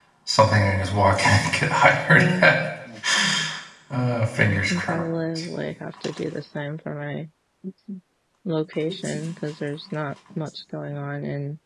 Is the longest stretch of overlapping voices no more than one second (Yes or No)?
Yes